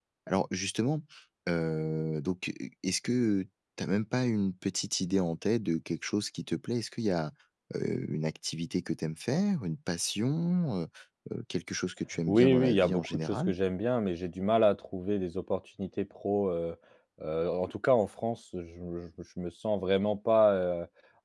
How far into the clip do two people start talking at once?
12.3 s

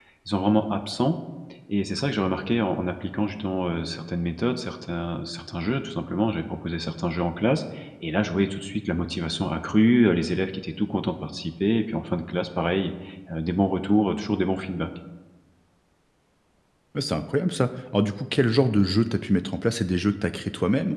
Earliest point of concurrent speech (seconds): none

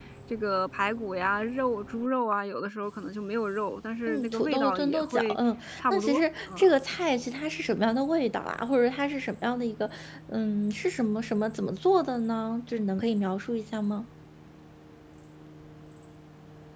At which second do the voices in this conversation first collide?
4.1 s

